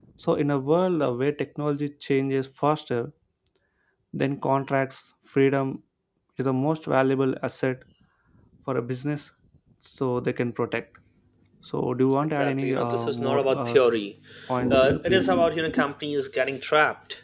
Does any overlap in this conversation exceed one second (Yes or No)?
Yes